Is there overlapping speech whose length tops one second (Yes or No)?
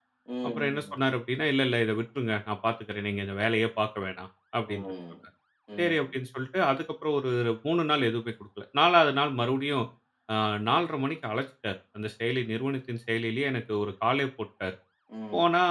No